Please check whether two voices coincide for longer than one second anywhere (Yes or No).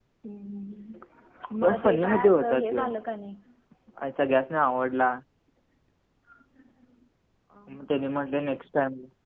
Yes